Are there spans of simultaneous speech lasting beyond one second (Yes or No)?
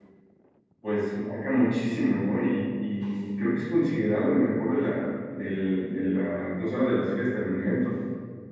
No